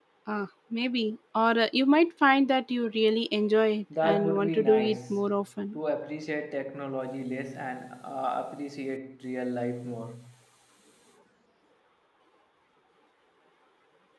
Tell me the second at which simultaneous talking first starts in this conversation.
3.9 s

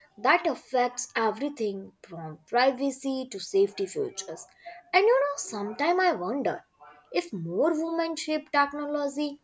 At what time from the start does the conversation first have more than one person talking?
none

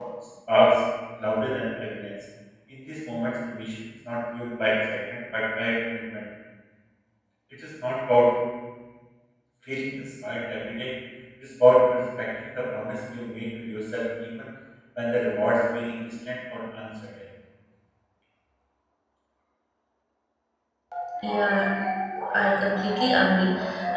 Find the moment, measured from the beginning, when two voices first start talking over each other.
none

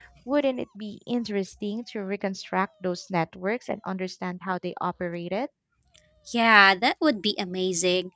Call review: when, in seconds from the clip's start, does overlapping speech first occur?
none

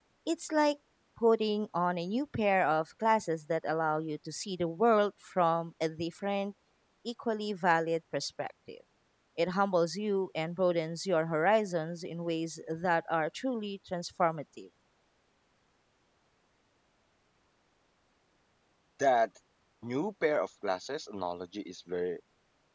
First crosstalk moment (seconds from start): none

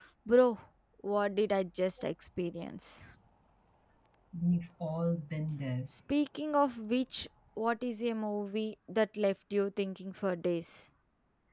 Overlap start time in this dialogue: none

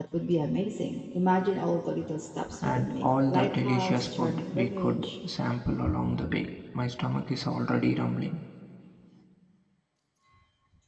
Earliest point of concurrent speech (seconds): 2.6 s

